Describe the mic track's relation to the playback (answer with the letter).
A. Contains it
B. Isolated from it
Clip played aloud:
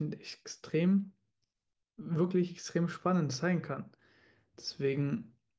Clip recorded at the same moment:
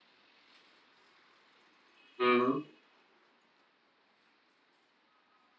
B